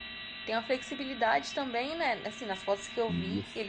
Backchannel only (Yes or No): Yes